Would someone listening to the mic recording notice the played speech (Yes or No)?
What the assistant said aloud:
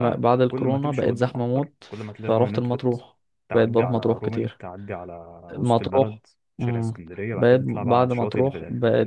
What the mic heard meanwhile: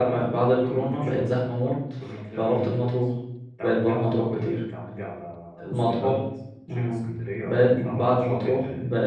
Yes